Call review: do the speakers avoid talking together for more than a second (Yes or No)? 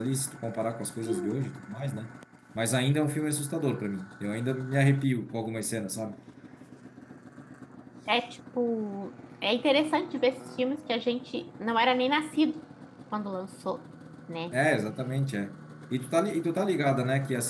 Yes